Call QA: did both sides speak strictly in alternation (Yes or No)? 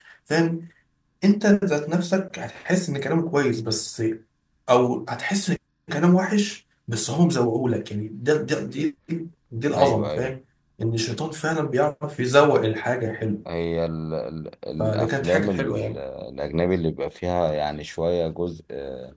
No